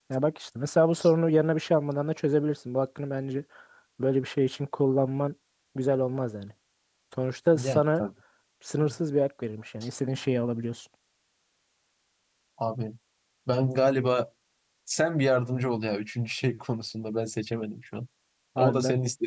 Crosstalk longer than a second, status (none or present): none